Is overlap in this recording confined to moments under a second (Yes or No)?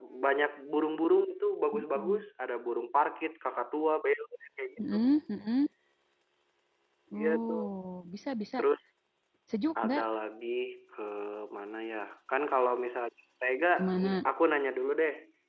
Yes